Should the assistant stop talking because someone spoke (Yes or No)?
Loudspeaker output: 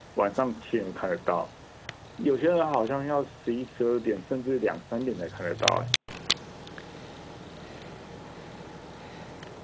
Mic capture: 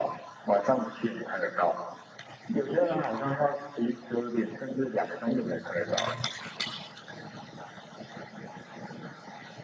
No